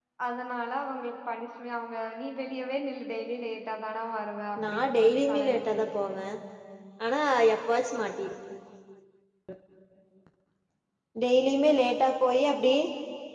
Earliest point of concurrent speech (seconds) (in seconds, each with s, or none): 4.6 s